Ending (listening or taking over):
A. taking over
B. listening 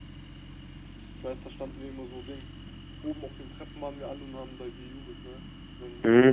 B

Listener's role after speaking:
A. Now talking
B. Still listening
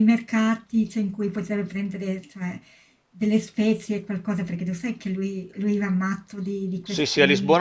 A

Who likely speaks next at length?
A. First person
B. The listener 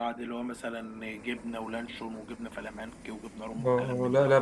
B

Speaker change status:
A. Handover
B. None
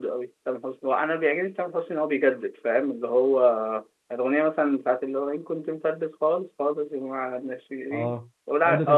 A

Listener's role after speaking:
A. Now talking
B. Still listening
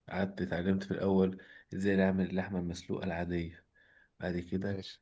B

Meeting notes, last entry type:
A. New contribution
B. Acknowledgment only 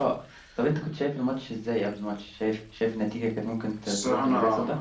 A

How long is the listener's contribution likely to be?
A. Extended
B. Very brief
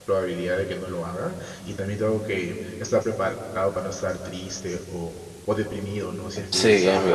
A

